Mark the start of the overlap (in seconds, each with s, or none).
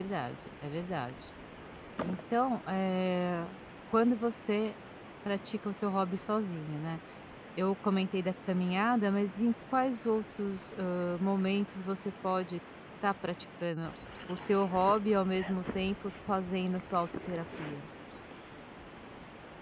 none